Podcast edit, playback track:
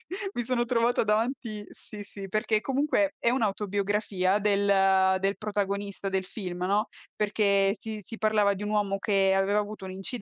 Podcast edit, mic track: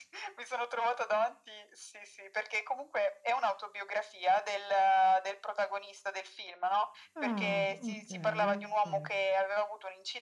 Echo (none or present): present